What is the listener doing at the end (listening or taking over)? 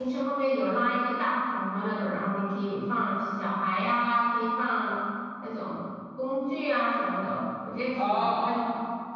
taking over